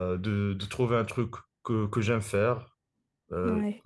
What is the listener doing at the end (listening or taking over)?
listening